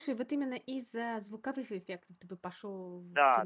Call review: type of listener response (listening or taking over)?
taking over